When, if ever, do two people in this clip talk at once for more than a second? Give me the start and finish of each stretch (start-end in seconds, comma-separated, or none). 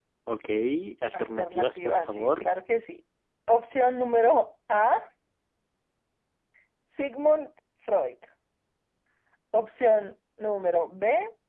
1.2-2.5